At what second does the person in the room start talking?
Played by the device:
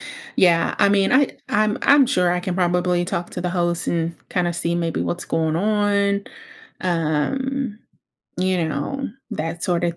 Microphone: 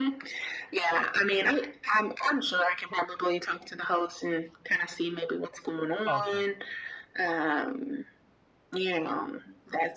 6 s

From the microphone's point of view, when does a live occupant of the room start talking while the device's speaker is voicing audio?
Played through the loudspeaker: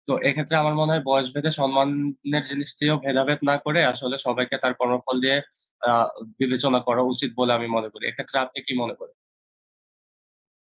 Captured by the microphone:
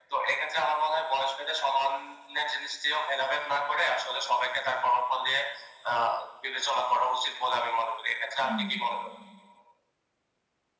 8 s

